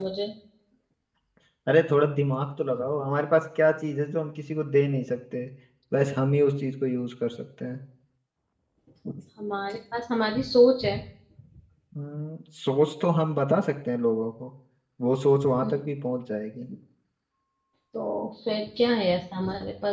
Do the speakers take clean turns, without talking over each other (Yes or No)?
Yes